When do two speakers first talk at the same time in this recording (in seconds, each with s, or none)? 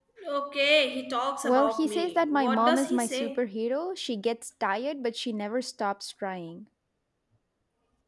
1.4 s